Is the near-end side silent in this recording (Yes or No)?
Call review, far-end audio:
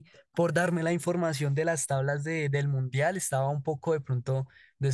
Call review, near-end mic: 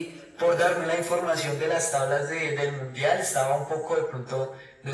Yes